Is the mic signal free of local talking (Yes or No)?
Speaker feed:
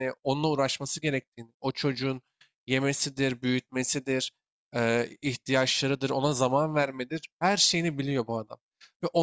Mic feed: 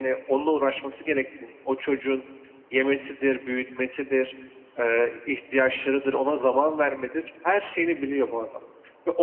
Yes